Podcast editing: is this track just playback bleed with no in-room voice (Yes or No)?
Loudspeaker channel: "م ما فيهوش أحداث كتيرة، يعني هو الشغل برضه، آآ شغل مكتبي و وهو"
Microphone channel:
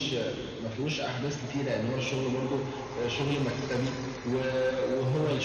Yes